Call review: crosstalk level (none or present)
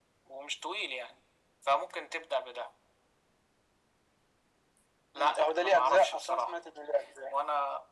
present